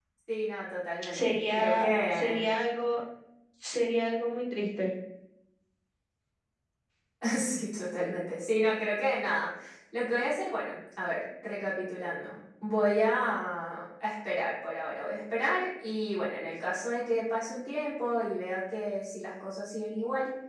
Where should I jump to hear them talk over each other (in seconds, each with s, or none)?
1.1 s